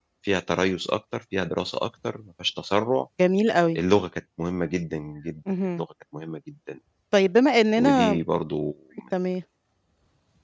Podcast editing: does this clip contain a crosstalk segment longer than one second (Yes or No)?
No